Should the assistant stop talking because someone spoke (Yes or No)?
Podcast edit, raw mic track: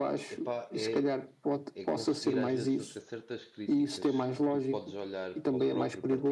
Yes